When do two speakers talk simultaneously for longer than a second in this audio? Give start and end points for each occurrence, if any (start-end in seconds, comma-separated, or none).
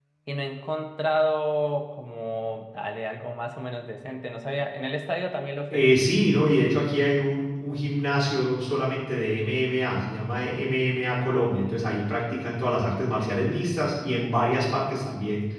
none